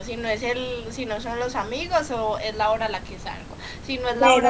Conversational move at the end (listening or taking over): listening